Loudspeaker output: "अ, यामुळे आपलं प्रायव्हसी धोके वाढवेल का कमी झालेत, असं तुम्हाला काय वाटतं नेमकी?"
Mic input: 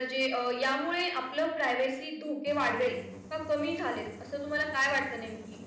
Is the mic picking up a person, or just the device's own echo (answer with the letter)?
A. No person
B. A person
A